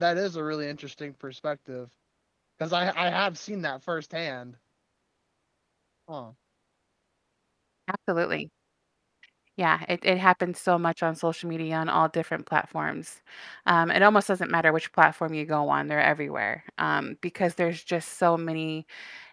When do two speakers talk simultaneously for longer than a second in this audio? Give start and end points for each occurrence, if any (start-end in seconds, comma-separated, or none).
none